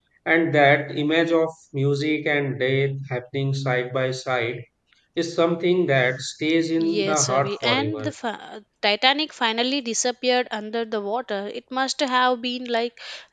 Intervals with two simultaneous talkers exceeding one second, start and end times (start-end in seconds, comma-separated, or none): 6.8-8.1